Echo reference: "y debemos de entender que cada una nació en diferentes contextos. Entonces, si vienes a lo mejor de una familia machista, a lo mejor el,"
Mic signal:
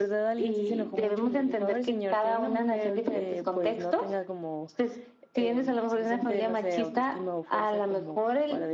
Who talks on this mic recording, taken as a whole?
both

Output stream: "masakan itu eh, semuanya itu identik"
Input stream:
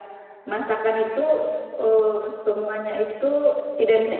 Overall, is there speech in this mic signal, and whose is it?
echo only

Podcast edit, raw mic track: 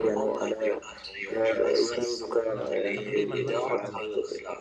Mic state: both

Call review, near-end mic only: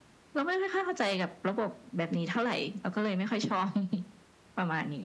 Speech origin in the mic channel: echo only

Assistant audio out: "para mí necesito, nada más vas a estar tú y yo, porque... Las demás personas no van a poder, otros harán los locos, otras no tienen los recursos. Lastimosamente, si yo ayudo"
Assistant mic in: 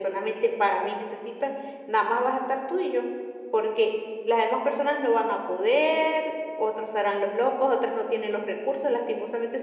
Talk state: echo only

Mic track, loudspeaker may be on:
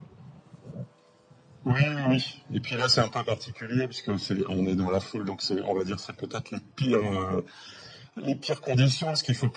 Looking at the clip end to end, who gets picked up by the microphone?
echo only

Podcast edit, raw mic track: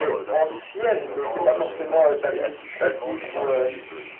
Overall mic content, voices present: both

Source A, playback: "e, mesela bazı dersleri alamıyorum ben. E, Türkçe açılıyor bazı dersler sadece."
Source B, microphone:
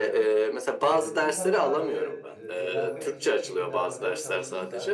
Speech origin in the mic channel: both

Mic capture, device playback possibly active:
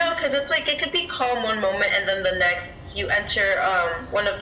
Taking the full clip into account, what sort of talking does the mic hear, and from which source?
echo only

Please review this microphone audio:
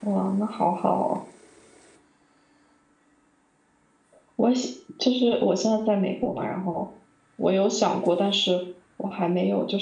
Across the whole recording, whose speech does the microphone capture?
user only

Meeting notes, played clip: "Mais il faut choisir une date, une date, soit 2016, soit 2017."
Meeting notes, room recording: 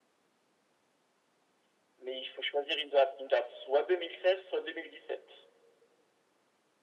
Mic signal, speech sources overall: echo only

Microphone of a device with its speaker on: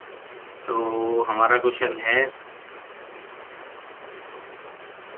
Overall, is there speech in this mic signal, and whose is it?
user only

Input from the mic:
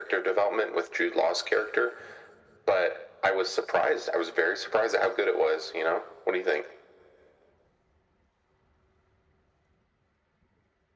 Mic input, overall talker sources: echo only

